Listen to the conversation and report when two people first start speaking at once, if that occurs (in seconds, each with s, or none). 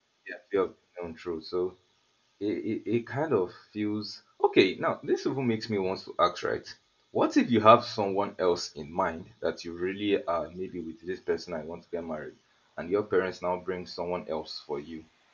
none